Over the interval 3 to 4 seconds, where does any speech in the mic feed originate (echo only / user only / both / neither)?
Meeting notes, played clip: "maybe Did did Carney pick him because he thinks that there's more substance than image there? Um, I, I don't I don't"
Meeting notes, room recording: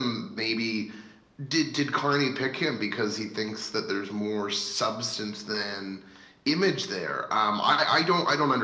echo only